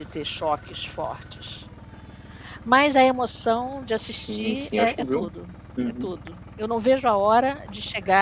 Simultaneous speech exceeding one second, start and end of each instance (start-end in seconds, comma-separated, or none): 4.0-5.3